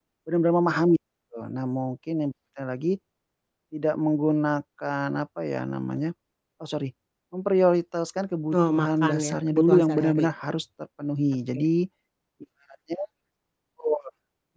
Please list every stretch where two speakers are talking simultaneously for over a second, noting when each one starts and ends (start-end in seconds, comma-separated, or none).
8.5-10.2